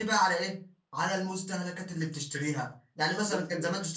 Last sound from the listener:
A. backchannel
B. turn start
A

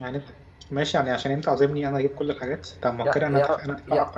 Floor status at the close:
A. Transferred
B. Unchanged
A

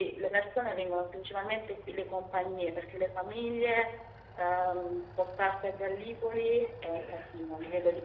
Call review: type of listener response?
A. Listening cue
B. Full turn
A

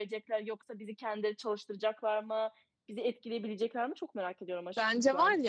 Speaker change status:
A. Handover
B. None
A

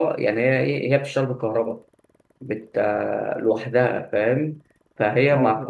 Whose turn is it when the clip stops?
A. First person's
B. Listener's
B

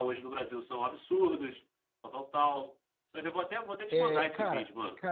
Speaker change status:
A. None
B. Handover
B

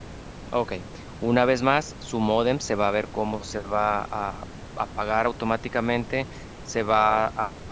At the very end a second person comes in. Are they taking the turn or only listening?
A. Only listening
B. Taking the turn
A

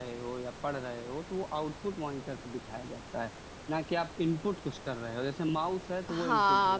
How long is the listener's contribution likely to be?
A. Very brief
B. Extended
B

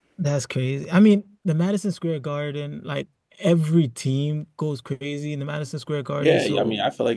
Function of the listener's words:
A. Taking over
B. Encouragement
A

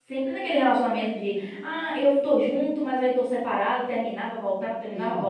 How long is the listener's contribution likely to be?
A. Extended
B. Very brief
A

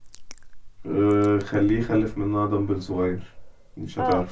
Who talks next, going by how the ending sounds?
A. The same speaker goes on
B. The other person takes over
B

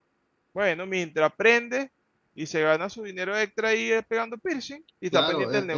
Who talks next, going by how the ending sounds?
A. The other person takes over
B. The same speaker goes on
A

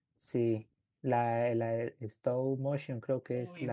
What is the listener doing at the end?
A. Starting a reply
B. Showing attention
A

